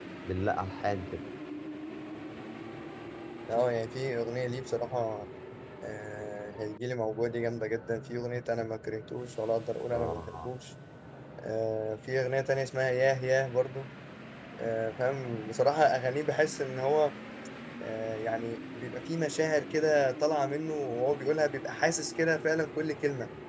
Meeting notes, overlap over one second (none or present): none